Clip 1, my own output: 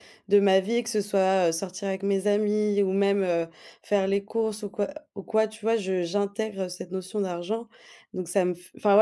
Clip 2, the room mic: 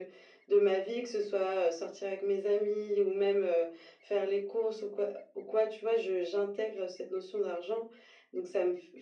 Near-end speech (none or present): none